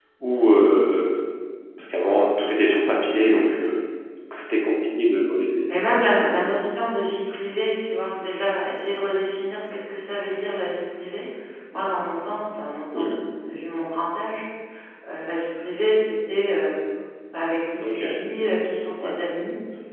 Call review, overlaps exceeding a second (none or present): none